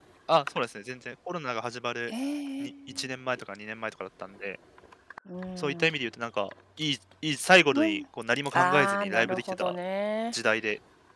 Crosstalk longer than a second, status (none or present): present